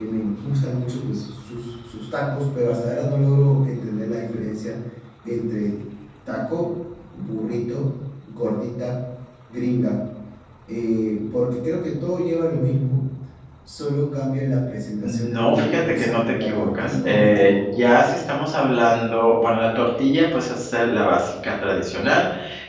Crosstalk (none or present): present